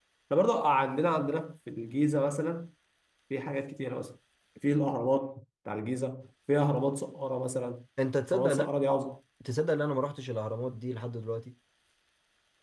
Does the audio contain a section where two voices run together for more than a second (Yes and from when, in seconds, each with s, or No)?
No